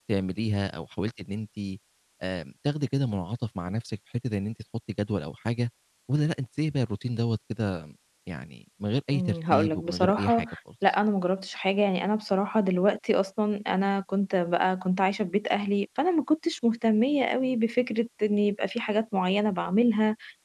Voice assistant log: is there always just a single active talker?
No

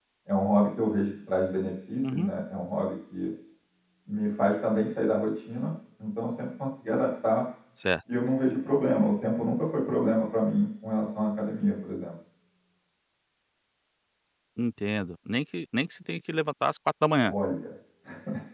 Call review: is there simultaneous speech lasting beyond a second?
No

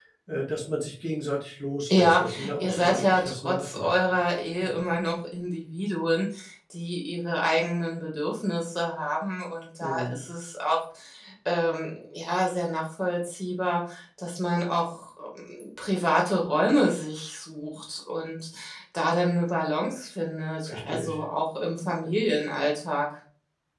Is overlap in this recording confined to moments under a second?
No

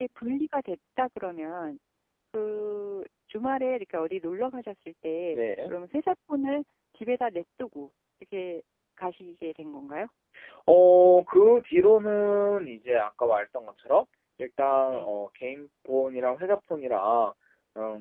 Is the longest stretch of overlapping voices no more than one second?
Yes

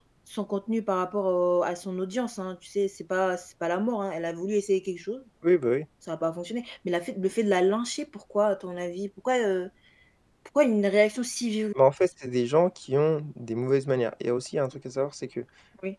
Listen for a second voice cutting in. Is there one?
No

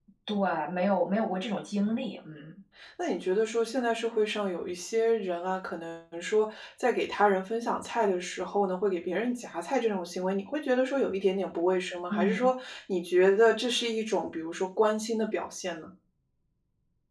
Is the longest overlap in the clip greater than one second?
No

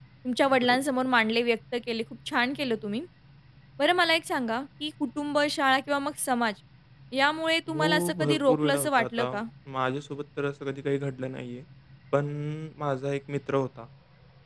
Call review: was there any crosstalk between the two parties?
Yes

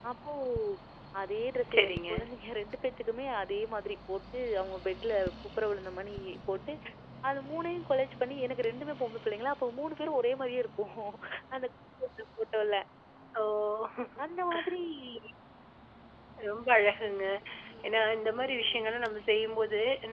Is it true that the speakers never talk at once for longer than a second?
Yes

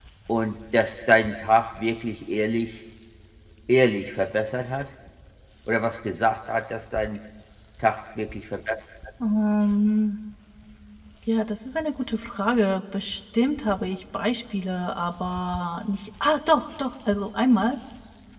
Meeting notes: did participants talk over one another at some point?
No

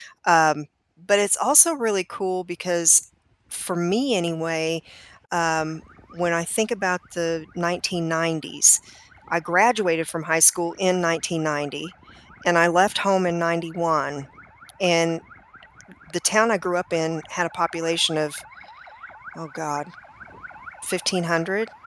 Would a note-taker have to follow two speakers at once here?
No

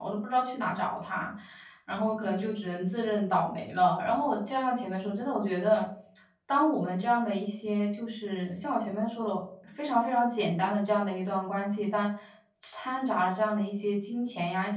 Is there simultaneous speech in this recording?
No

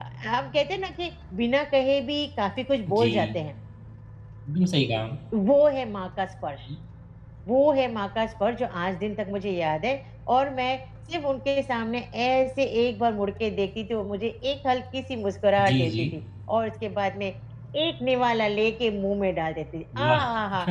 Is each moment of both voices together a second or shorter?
Yes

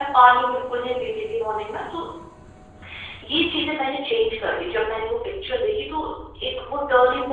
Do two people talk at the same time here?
No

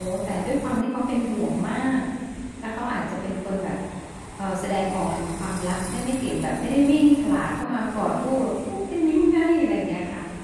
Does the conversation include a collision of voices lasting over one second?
No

